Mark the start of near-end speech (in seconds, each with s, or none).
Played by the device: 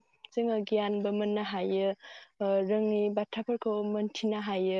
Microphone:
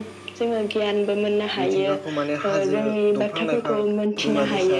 1.6 s